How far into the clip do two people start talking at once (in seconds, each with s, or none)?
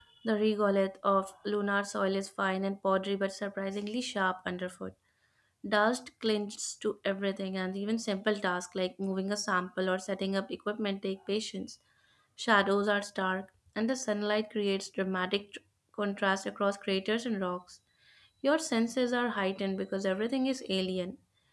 none